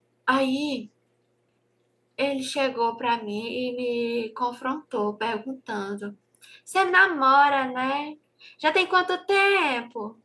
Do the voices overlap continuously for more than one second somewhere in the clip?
No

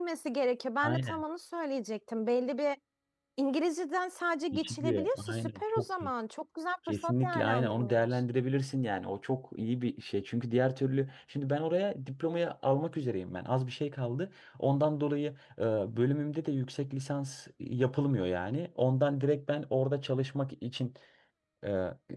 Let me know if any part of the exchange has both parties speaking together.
Yes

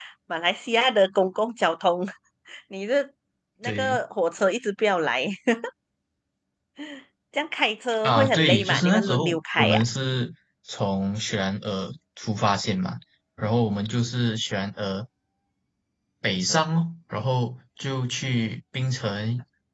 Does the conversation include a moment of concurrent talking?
Yes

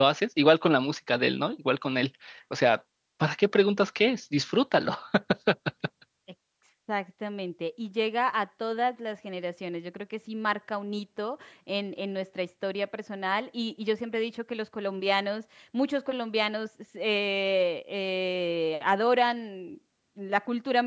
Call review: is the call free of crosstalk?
Yes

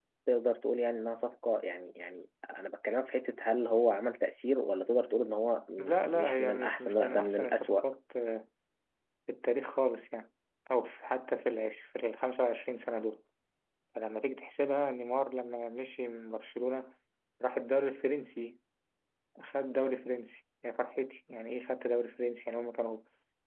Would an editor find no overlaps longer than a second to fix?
No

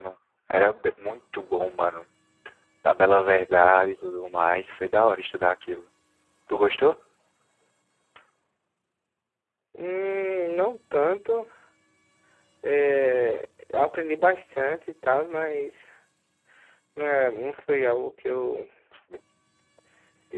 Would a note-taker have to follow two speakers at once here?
No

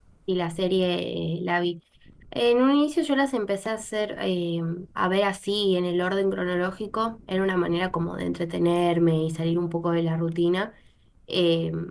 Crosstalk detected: No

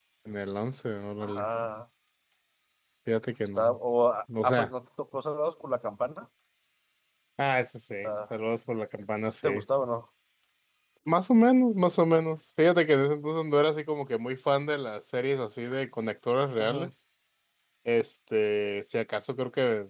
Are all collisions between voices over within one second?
Yes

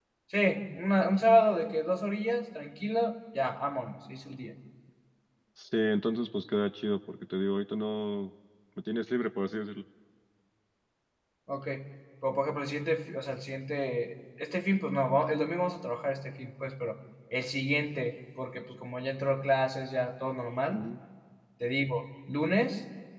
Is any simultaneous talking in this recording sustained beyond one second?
No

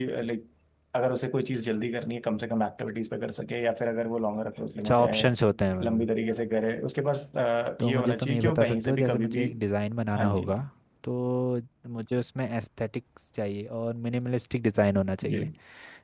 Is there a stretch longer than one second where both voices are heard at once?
Yes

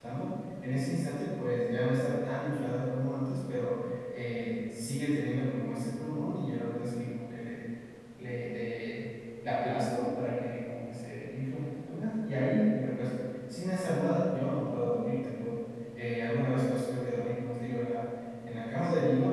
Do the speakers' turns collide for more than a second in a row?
No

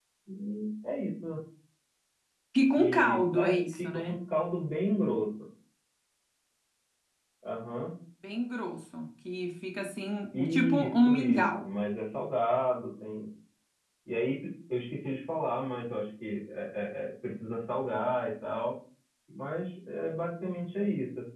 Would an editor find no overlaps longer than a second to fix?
No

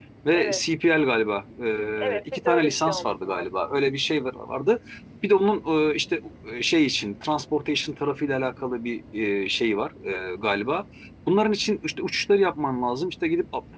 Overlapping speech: Yes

